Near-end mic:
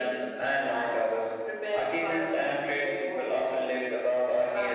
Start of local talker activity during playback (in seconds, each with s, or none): none